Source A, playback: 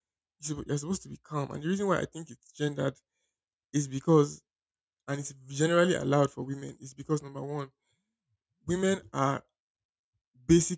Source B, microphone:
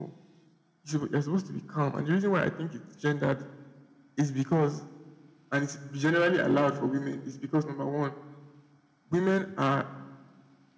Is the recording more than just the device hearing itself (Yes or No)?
No